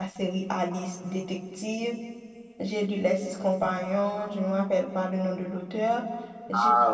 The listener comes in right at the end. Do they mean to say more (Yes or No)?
No